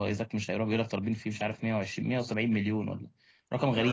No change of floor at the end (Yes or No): No